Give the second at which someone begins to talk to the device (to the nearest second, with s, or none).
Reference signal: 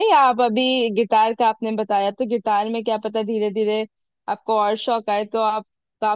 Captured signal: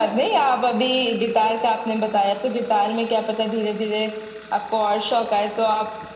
none